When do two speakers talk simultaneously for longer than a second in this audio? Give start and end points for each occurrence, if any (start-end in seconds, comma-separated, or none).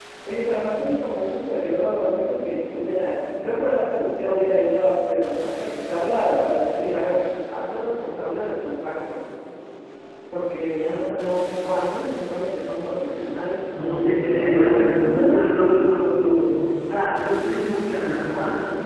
13.8-15.4